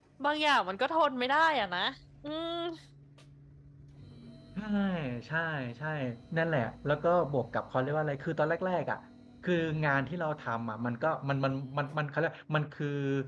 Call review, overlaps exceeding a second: none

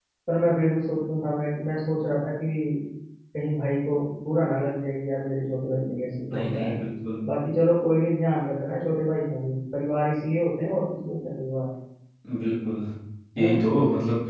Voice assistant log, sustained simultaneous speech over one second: none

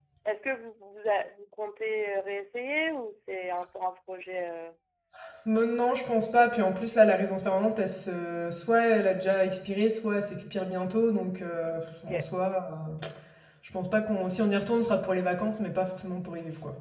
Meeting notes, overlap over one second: none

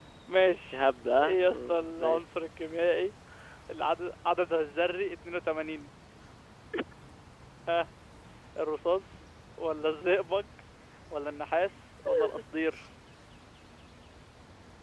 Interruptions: present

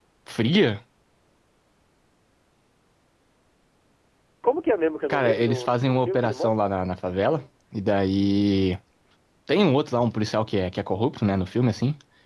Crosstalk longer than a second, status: present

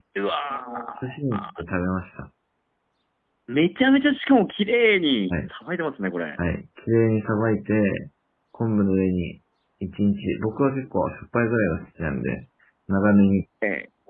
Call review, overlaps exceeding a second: none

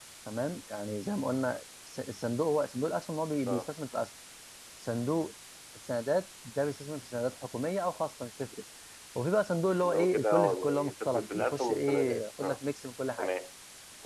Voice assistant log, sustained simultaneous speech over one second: present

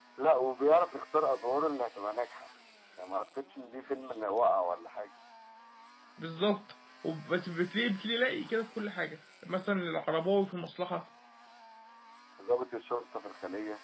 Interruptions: none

